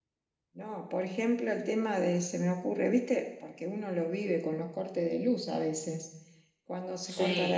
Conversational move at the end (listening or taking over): listening